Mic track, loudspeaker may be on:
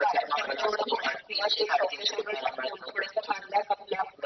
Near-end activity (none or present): none